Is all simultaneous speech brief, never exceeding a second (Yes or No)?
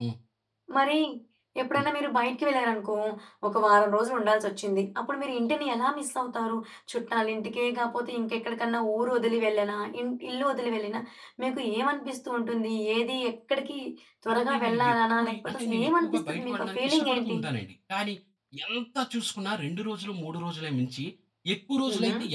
No